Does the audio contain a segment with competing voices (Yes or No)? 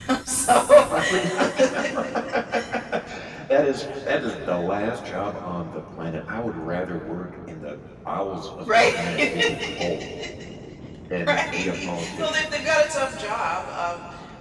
Yes